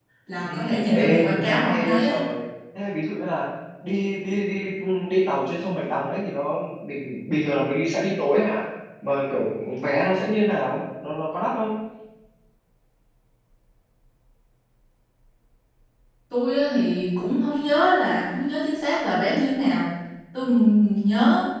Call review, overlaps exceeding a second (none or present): present